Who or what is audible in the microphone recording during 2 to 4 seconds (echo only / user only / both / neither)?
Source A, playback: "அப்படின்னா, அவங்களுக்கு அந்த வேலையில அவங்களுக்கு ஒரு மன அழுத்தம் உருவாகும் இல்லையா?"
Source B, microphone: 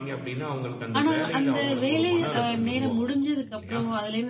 both